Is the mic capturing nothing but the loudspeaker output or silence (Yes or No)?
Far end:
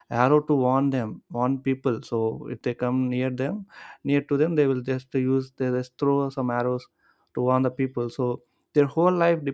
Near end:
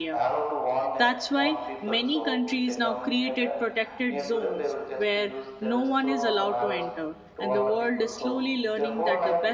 No